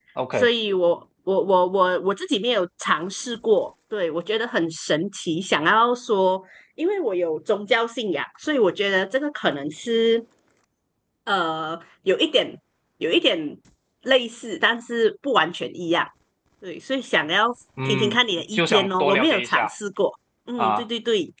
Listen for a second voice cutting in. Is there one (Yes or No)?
Yes